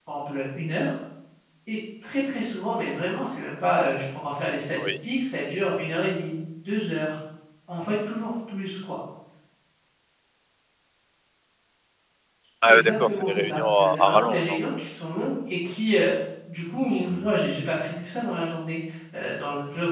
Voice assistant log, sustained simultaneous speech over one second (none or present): present